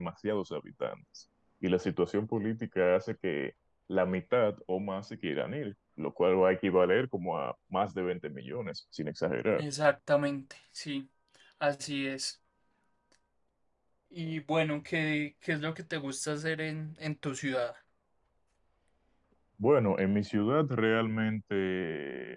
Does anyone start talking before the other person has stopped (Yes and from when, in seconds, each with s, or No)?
No